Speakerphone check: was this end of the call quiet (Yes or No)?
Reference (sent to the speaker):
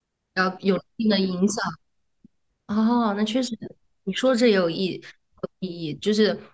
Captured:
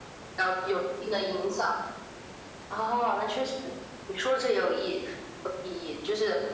Yes